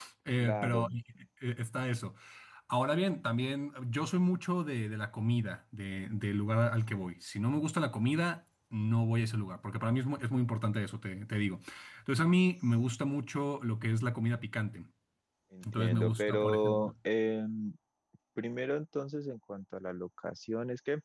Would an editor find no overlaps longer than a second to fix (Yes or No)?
No